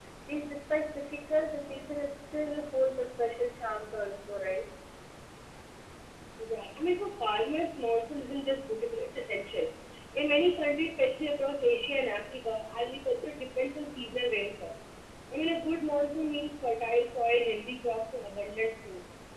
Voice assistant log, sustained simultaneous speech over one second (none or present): none